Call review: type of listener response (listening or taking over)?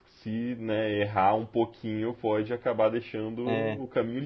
taking over